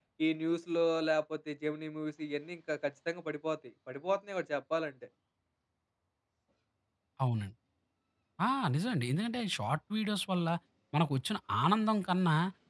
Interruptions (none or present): none